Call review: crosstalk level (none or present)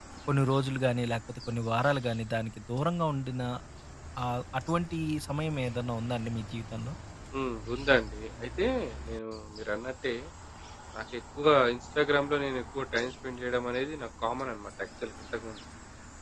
none